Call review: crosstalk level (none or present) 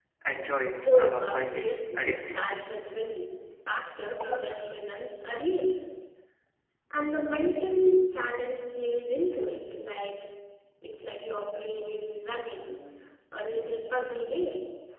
present